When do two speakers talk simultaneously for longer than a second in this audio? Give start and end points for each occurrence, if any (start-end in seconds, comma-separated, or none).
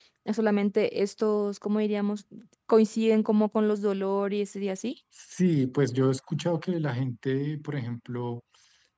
none